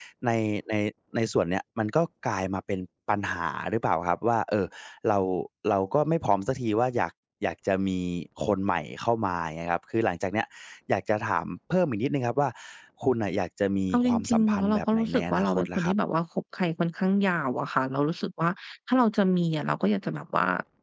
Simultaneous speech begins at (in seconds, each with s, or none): 13.9 s